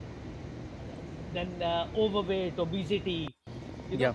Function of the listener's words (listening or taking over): listening